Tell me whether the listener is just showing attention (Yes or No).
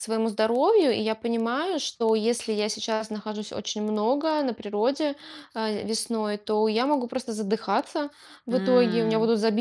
Yes